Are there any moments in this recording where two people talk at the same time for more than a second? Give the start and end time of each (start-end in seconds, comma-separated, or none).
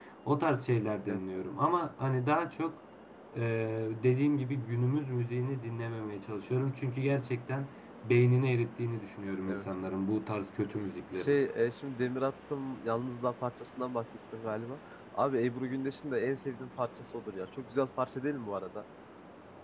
none